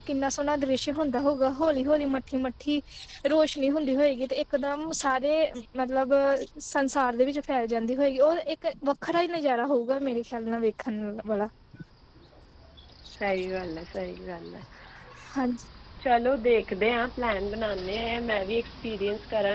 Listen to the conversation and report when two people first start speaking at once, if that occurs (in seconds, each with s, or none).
none